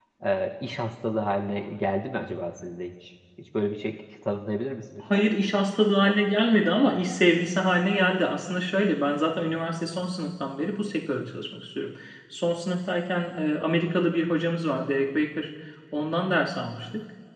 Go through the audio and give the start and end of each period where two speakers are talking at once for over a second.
none

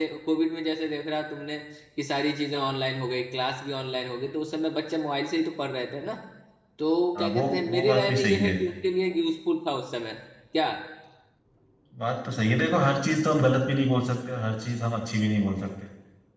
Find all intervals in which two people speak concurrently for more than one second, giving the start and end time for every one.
7.2-8.6

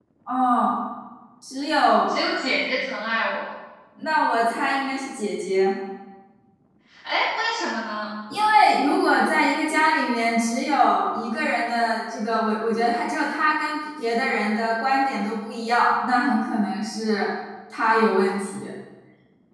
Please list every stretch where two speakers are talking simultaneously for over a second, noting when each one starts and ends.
none

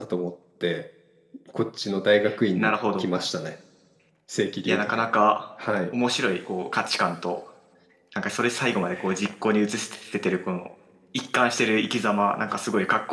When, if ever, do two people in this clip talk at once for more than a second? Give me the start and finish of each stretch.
none

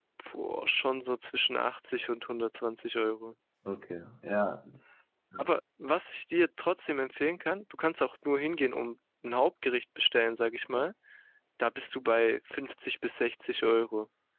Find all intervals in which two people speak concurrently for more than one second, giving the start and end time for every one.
none

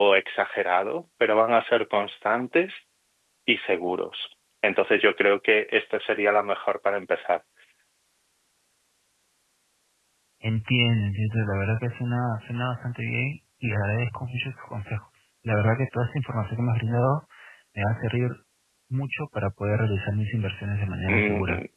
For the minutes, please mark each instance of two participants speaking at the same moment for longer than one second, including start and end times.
none

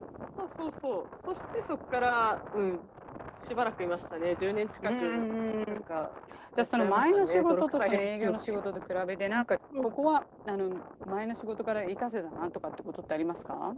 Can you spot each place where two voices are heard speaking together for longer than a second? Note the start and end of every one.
6.6-8.3

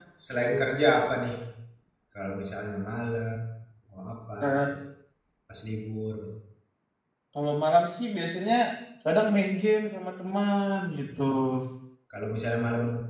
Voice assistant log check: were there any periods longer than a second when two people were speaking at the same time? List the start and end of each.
none

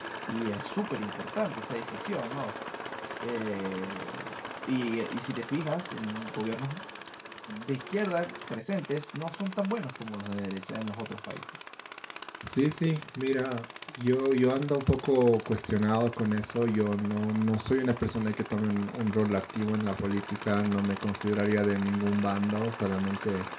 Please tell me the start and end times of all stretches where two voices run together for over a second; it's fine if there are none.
none

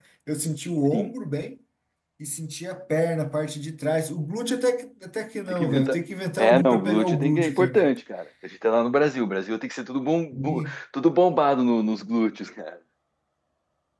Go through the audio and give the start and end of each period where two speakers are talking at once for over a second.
6.4-8.0

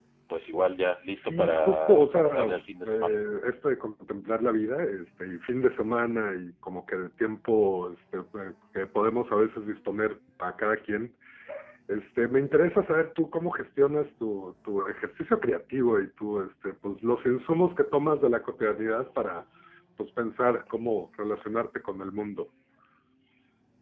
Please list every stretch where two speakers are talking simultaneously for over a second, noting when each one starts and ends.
1.1-2.5

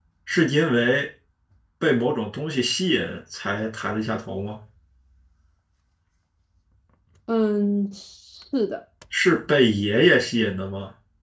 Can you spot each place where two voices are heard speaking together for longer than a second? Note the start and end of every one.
none

